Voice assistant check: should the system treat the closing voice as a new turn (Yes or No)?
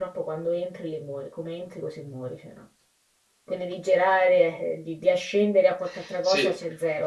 Yes